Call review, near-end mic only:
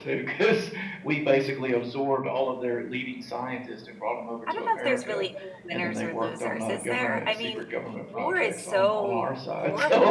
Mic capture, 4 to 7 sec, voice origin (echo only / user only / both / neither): both